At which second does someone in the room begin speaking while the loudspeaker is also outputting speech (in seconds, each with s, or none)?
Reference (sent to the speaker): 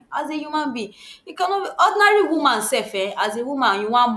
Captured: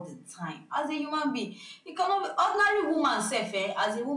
none